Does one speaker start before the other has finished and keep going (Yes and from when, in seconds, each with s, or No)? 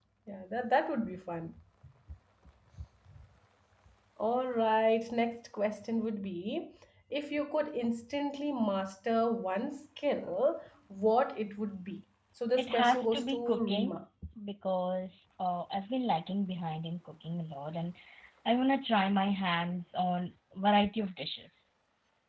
Yes, from 12.6 s